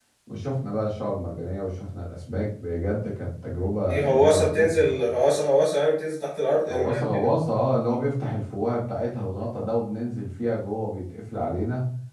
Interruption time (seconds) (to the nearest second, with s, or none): 4 s